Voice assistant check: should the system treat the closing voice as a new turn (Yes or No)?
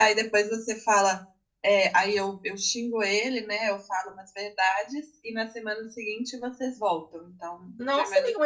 Yes